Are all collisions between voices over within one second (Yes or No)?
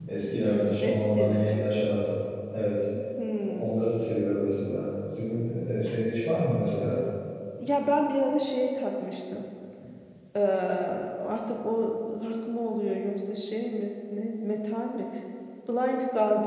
No